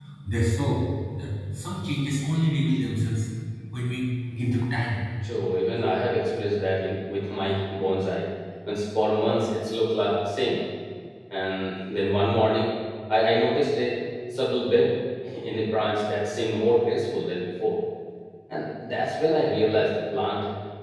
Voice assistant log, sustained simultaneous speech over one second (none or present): none